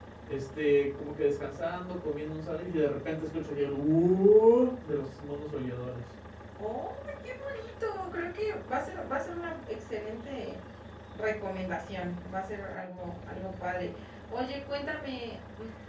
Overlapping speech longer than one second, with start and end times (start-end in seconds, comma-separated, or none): none